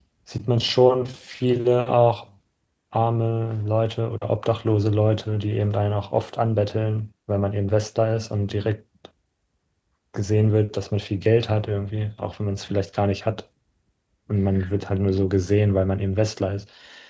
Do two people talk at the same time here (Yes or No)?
No